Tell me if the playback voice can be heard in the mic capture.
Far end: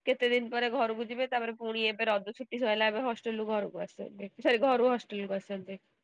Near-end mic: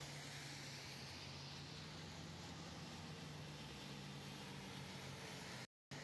No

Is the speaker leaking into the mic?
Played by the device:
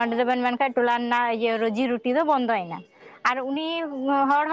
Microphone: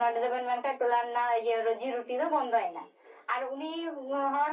Yes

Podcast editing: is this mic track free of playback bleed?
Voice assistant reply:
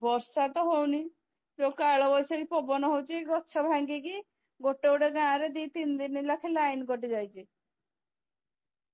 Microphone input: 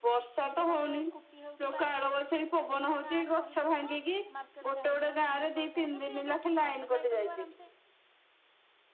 No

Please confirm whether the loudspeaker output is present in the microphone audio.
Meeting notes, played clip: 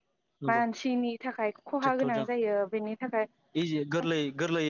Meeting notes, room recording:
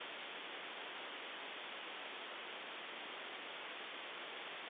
No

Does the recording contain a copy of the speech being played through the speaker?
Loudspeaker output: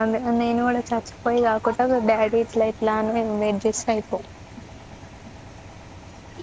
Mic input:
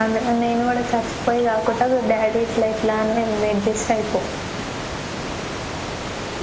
Yes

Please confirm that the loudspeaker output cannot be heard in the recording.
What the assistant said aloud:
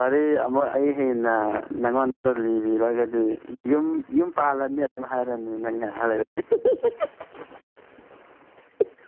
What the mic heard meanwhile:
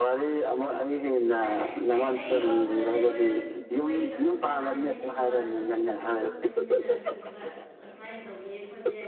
No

